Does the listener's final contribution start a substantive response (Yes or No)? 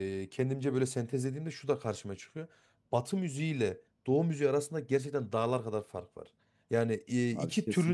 No